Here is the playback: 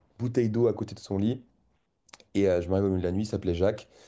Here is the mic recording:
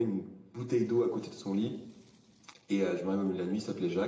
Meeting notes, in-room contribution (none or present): none